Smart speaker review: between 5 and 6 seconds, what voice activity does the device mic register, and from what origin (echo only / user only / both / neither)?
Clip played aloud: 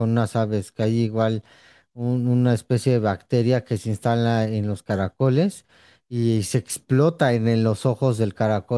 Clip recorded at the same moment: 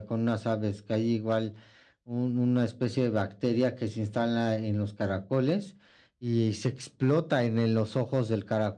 echo only